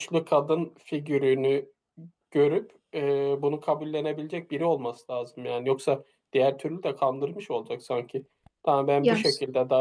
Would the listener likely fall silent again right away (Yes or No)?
Yes